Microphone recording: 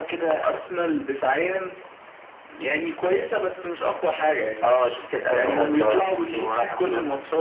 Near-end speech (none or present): present